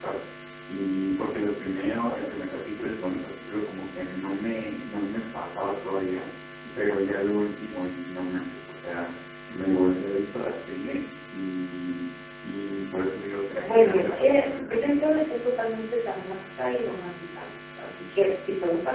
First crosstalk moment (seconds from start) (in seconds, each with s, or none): 13.6 s